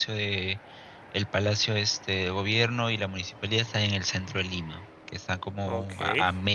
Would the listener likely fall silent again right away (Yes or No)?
Yes